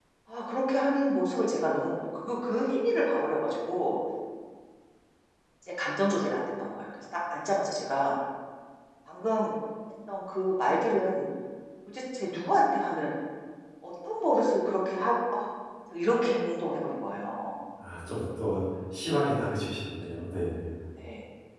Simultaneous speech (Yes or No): No